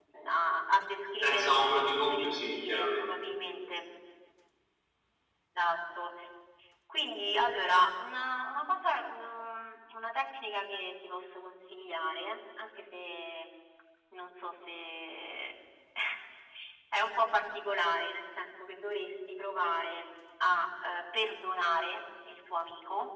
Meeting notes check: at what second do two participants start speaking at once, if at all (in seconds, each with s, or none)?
1.2 s